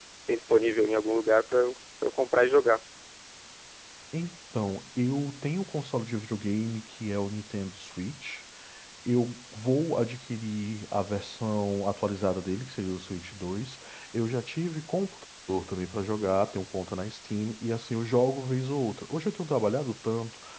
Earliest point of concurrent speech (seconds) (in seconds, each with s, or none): none